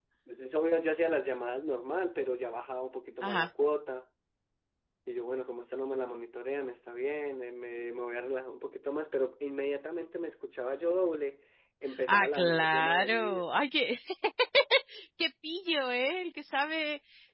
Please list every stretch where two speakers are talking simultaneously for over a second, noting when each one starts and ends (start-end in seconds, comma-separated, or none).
12.1-13.5